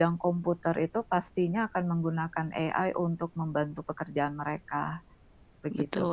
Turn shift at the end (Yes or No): Yes